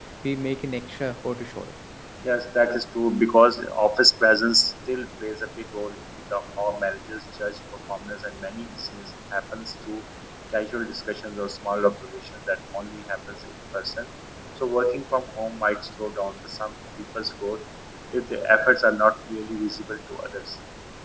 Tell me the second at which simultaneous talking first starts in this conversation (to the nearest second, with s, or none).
none